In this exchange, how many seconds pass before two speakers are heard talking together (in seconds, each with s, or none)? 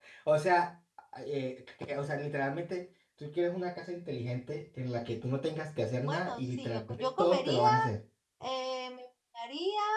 6.1 s